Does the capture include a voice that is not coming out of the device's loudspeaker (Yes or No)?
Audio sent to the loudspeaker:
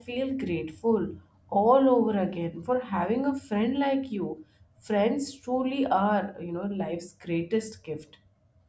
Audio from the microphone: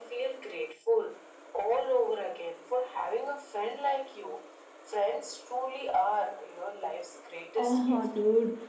Yes